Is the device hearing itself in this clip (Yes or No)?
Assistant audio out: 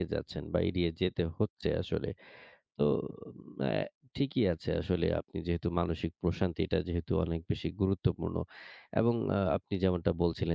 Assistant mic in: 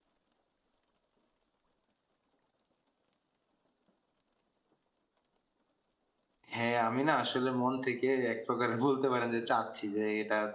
No